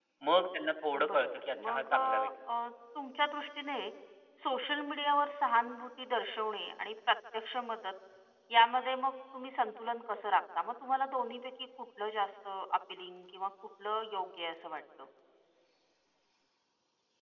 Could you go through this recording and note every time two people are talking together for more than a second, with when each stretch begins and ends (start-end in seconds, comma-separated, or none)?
1.1-2.3